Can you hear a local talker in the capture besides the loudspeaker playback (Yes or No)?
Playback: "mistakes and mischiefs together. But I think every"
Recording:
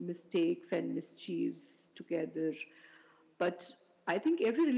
No